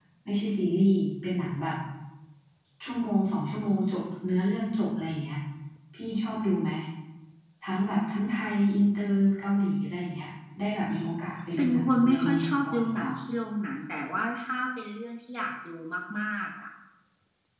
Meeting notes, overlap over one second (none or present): present